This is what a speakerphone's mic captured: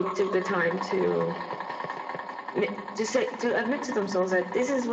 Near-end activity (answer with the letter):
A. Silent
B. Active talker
A